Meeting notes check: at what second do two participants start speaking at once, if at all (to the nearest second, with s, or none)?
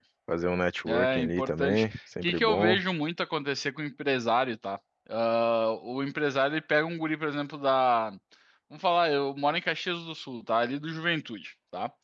1 s